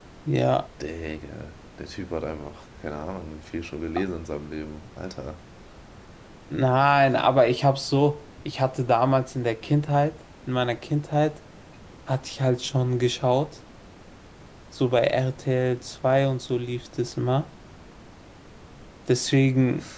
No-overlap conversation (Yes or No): Yes